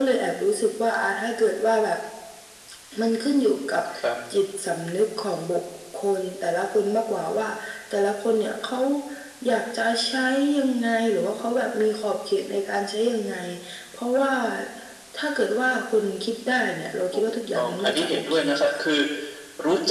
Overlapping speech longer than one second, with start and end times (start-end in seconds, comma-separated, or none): 17.1-18.8